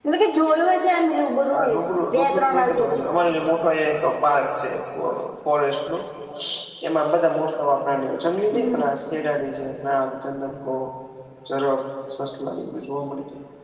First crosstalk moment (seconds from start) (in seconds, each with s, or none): 1.5 s